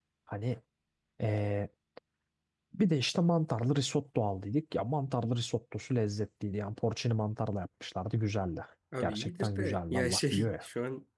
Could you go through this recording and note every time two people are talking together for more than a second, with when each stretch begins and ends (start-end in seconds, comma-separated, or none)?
9.0-10.6